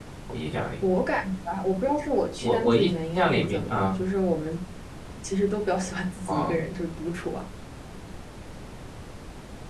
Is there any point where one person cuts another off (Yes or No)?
Yes